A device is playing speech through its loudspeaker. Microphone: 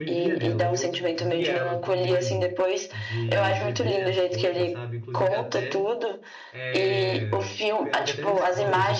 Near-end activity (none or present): present